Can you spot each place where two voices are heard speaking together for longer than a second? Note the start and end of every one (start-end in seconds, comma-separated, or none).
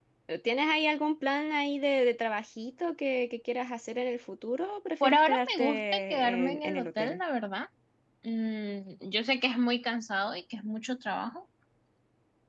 5.0-7.2